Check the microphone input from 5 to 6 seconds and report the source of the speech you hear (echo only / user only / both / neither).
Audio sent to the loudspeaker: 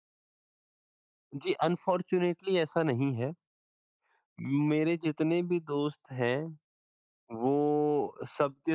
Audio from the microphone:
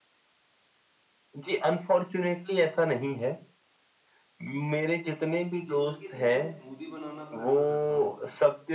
both